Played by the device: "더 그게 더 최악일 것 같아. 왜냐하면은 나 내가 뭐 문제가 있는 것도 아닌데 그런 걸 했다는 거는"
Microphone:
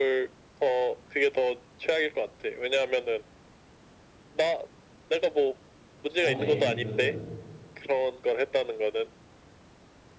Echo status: present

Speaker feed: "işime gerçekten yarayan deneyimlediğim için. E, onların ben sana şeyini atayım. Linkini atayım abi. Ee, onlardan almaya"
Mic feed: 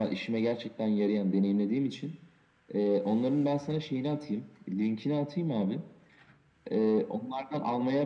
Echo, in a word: present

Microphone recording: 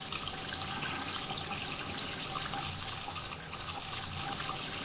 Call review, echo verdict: none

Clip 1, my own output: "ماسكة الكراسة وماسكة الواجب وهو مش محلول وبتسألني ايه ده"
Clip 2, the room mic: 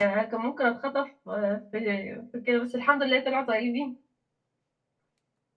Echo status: none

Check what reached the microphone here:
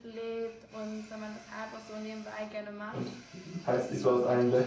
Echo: present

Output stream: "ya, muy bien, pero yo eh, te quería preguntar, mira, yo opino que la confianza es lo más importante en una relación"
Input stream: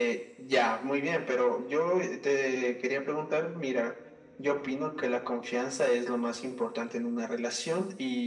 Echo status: present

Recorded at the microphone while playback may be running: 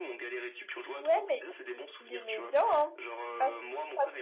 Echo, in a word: present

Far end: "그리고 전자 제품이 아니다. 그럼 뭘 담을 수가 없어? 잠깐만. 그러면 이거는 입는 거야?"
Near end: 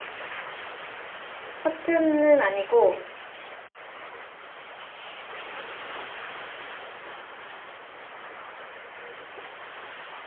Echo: none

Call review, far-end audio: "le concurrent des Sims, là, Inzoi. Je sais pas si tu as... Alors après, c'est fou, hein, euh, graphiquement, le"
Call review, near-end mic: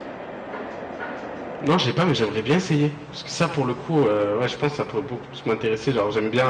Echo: none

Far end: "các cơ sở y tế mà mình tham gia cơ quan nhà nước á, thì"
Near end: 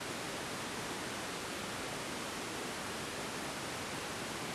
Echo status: none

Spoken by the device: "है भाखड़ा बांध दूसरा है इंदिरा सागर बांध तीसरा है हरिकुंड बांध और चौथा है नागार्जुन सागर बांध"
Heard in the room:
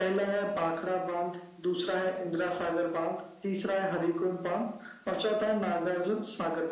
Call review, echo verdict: present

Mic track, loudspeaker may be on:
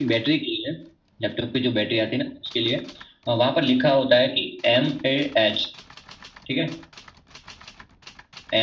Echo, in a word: present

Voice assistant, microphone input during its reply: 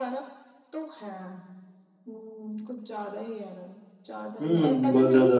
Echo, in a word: present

